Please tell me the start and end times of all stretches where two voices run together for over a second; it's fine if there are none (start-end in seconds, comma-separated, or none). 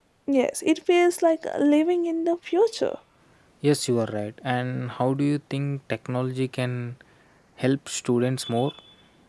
none